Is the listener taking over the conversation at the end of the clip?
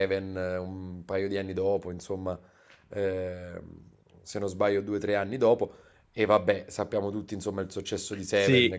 Yes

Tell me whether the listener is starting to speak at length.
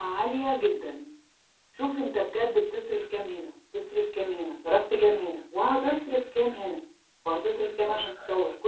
No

